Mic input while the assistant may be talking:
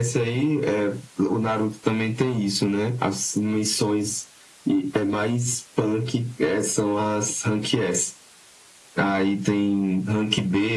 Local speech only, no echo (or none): none